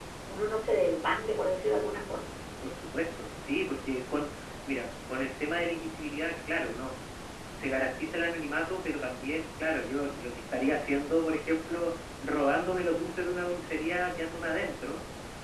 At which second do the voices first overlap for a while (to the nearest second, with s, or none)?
none